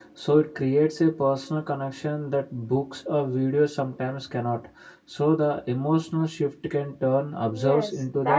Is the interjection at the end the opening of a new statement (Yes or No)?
Yes